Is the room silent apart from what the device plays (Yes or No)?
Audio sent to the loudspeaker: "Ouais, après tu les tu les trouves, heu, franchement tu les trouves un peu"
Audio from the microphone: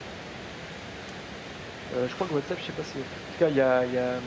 No